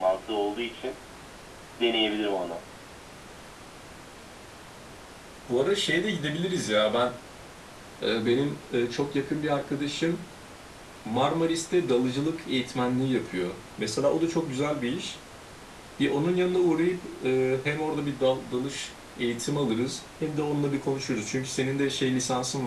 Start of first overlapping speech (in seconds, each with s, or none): none